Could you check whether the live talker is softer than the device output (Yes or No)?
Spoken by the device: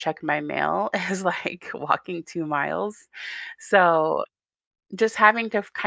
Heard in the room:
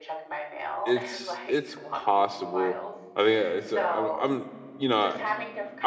No